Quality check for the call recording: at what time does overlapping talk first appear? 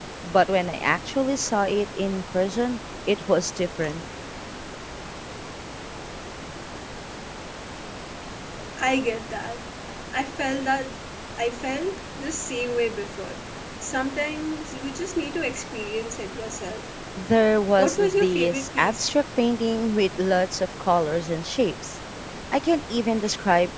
17.8 s

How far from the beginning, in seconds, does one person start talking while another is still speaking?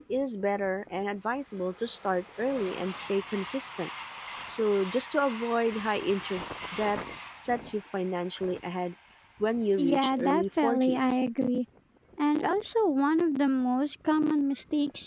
9.8 s

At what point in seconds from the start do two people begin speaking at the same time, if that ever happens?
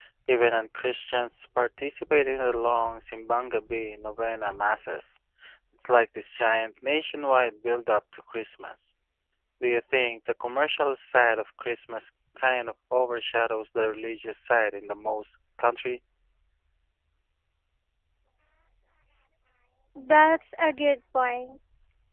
none

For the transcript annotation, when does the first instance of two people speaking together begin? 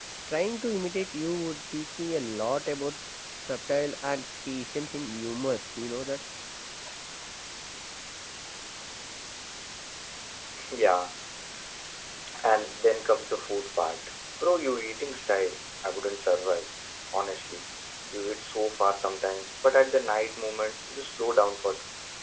none

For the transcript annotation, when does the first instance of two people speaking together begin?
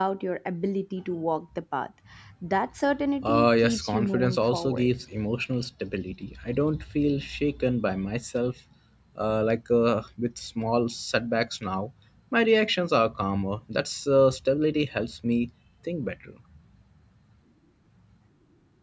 3.2 s

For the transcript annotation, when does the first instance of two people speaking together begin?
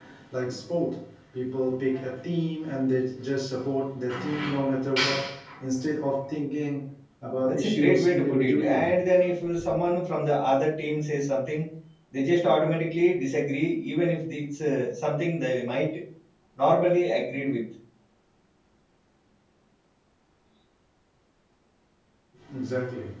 7.5 s

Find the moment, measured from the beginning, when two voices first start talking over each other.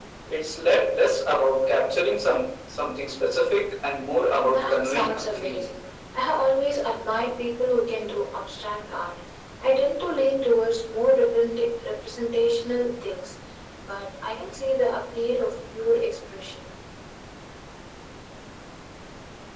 4.4 s

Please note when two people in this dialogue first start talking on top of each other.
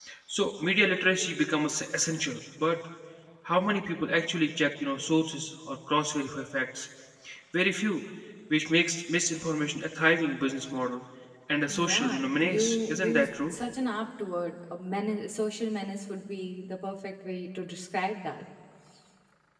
11.7 s

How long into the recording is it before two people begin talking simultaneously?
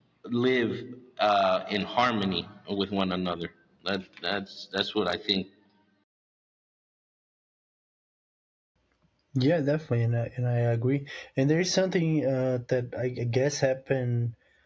none

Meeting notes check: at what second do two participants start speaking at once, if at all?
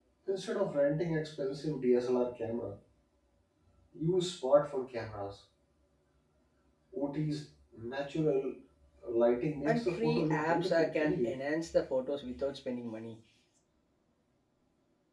9.7 s

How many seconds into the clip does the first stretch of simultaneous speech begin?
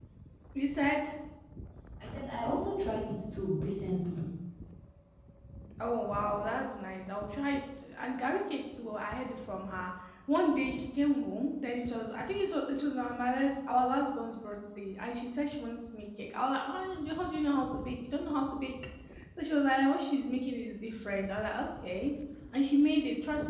none

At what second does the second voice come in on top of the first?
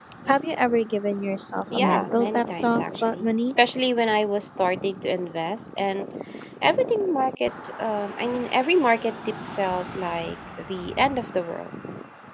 1.7 s

